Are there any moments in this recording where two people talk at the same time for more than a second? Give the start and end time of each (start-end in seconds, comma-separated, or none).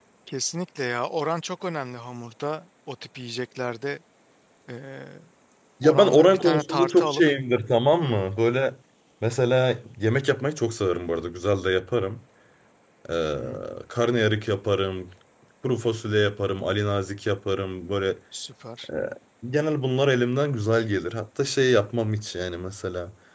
5.8-7.2